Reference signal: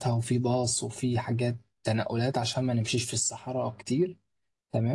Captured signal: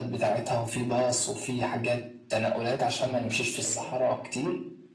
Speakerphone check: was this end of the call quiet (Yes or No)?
No